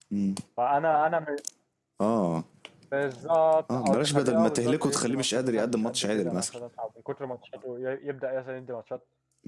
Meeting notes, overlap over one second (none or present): present